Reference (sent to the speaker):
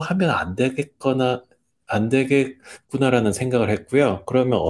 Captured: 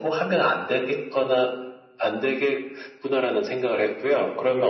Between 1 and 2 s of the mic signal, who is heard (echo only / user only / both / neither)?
echo only